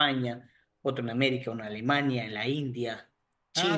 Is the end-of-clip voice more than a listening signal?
Yes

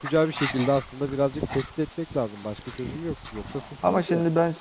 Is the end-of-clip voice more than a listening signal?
Yes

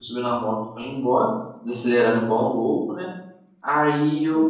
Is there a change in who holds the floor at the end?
No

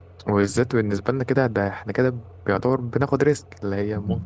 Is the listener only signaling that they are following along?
Yes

